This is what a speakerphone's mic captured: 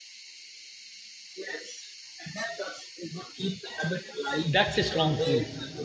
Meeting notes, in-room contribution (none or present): present